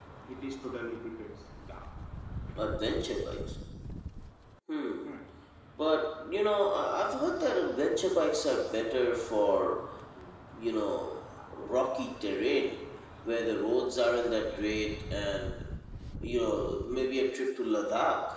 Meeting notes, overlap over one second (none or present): none